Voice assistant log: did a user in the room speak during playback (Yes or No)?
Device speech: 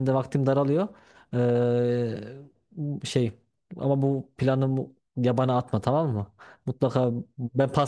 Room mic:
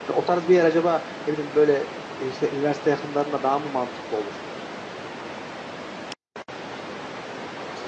Yes